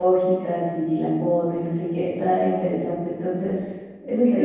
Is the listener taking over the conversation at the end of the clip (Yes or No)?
Yes